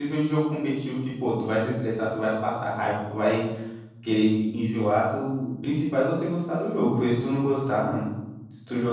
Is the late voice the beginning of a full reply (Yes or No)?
No